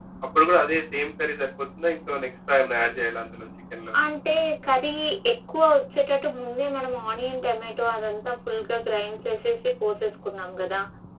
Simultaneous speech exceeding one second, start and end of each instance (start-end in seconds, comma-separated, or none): none